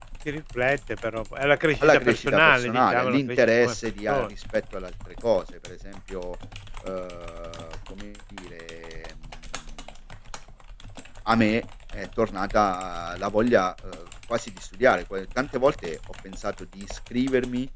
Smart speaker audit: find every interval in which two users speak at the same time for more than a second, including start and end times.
1.8-4.3

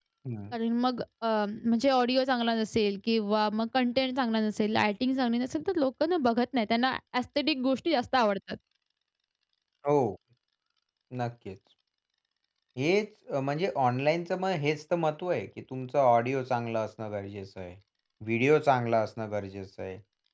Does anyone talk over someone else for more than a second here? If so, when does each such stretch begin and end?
none

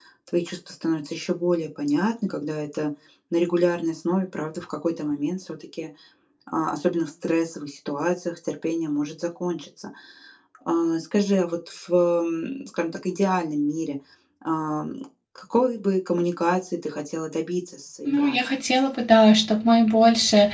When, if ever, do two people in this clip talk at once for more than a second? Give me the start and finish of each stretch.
none

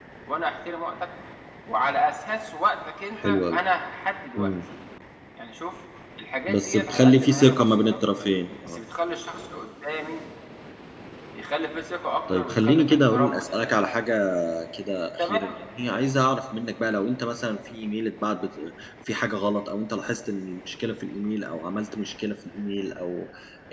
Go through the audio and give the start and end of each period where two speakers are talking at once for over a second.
6.5-8.0, 12.3-13.7

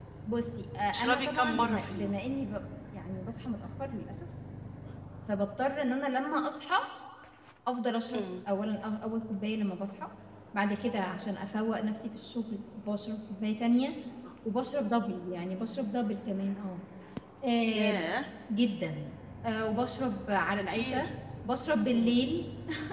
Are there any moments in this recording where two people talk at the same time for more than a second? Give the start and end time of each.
0.9-2.1

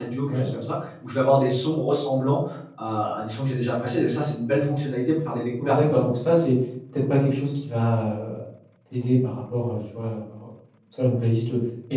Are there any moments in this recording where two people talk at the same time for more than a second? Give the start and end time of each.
none

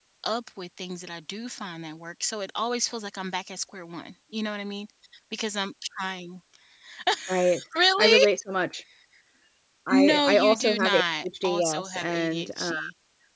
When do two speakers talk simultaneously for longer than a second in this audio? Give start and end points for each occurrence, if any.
9.9-12.7

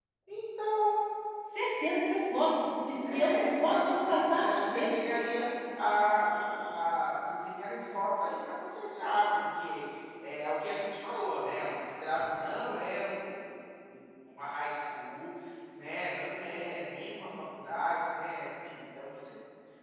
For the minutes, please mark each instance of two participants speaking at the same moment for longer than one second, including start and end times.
3.0-4.9

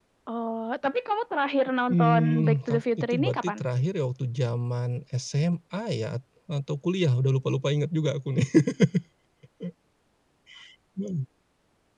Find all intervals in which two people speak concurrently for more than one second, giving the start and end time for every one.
1.9-3.6

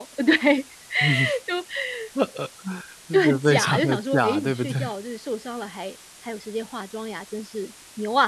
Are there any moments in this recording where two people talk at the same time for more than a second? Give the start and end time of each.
3.1-4.8

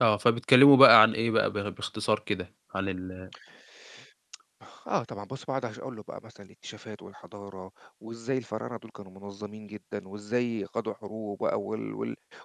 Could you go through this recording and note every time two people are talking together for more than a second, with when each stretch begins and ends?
none

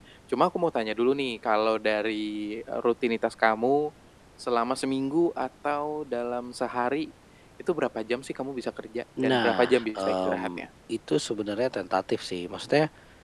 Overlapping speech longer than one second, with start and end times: 9.2-10.6

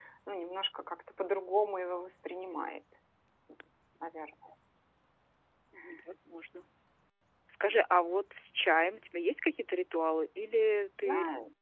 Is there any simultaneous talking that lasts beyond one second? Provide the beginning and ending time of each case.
none

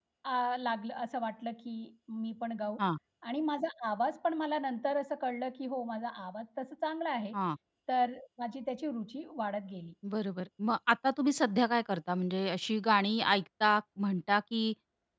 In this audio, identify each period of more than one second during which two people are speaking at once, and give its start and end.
none

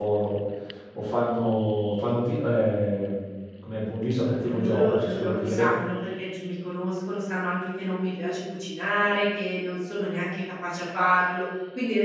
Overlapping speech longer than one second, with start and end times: 4.4-5.7

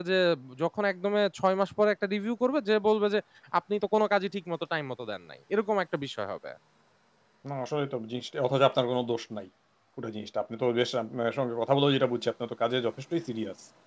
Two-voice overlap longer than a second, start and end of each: none

